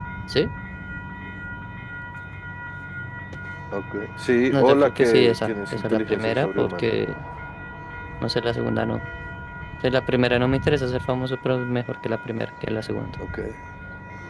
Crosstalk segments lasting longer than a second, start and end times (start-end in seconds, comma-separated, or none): 4.5-6.9